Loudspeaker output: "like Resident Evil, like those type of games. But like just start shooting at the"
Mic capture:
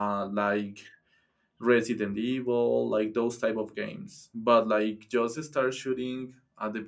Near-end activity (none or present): none